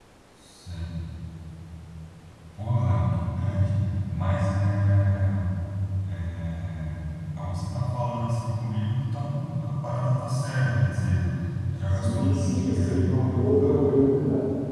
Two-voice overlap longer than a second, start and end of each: 11.9-13.8

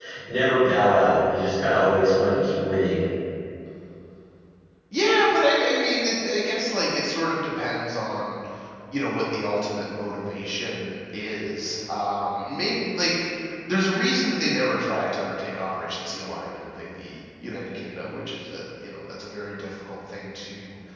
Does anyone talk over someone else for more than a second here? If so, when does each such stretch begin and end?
none

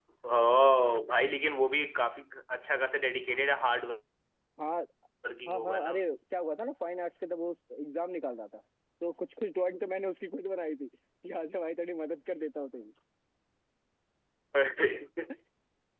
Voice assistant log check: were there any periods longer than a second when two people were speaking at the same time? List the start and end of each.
none

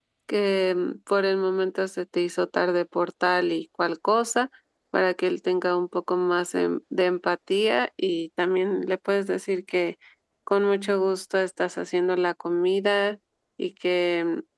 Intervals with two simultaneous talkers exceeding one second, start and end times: none

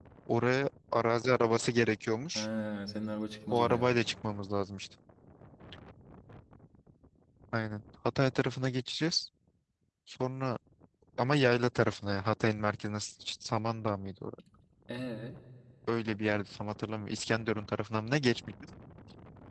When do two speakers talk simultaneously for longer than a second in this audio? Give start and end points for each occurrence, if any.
none

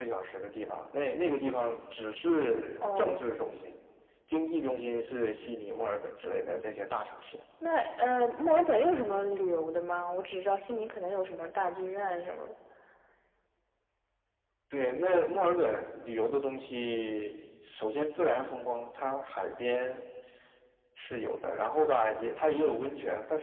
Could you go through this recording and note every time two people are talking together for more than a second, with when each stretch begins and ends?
none

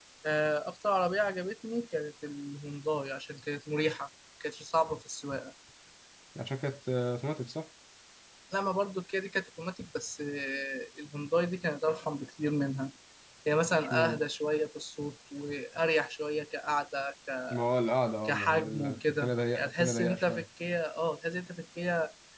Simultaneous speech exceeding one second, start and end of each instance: 18.2-20.4

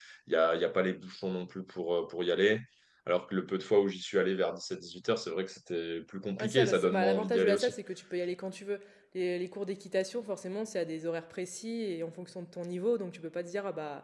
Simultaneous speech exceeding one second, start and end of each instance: 6.4-7.7

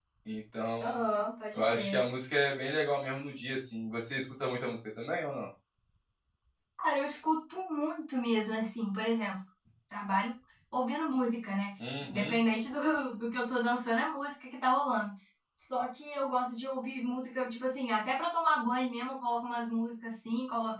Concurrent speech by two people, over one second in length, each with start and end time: none

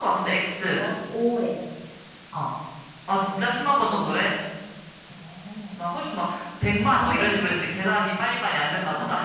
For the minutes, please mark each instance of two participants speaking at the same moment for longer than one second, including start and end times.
none

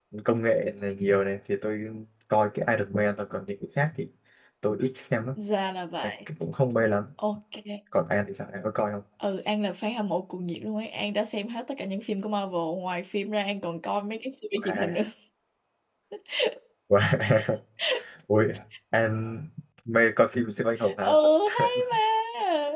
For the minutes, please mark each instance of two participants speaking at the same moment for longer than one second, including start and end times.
none

